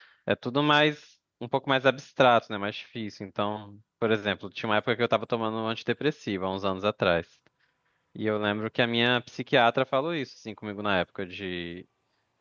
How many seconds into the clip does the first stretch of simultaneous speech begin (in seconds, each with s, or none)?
none